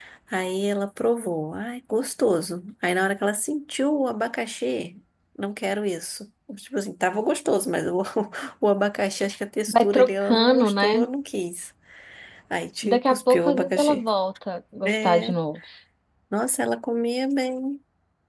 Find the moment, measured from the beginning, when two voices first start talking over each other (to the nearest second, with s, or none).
10 s